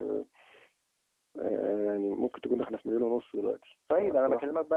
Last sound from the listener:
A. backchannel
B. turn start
B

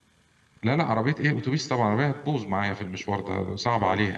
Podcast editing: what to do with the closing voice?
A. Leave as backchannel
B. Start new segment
B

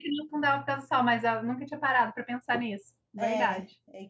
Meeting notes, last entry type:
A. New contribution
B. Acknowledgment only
A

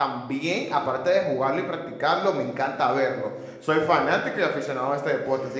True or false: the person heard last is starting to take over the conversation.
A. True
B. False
B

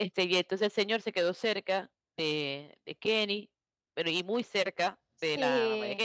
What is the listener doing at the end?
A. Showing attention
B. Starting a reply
B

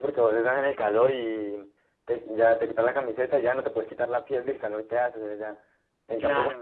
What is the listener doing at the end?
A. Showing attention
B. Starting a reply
A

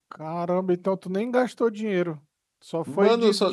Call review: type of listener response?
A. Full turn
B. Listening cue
A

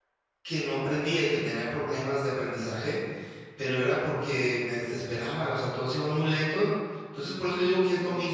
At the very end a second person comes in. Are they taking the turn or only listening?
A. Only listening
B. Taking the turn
A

